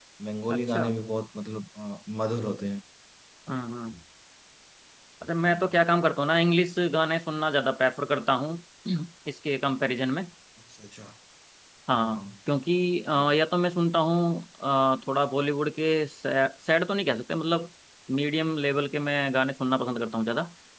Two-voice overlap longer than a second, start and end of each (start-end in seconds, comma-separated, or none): none